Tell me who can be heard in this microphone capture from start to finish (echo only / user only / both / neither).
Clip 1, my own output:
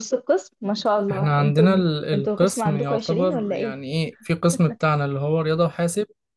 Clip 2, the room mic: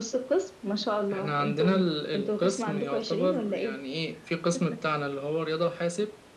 echo only